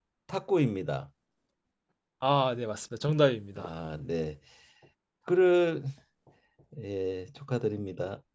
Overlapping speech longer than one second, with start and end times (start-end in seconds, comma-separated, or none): none